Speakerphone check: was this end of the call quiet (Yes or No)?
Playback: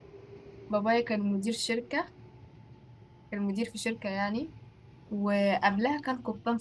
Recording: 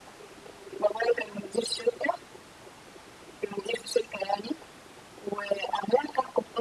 Yes